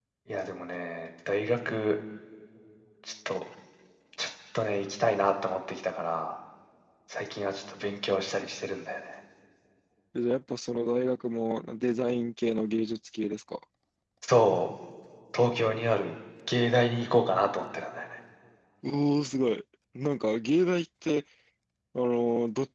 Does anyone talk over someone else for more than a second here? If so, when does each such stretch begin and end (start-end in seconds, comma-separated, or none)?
none